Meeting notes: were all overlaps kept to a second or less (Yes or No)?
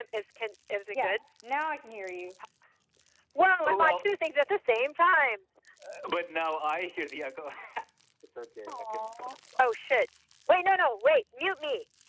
Yes